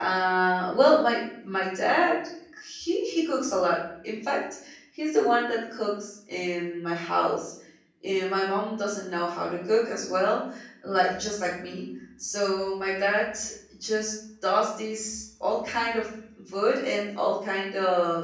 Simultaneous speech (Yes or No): No